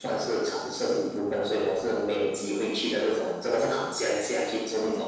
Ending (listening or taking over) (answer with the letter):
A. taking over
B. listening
A